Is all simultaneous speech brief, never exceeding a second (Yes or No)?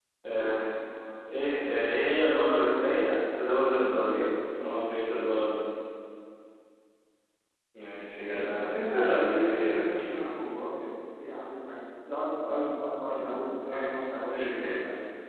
No